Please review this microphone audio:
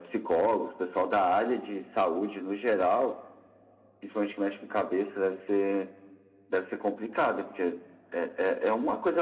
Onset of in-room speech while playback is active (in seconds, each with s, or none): none